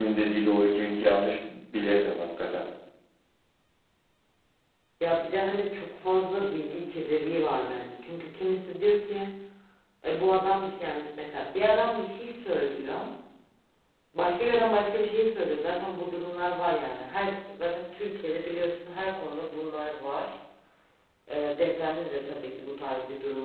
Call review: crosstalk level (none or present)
none